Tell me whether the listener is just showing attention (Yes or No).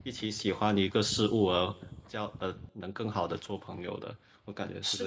No